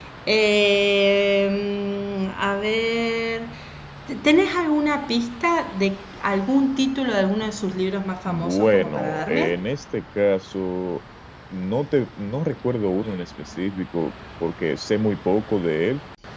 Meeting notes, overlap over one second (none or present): present